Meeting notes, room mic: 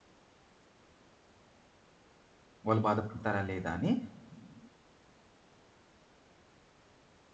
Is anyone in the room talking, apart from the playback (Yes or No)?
Yes